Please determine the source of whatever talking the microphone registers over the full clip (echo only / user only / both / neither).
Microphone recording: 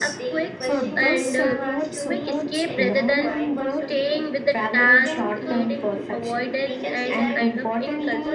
both